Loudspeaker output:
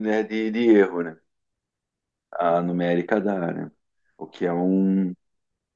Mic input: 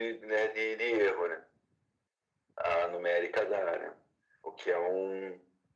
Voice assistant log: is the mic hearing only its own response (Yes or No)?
Yes